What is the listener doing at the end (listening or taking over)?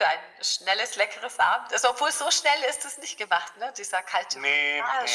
taking over